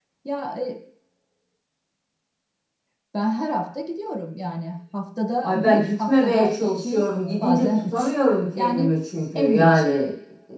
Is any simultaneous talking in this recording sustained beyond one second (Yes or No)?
Yes